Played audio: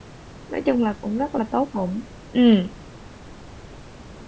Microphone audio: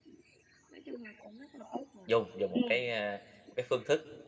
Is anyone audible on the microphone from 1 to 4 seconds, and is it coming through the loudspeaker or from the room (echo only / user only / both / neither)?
both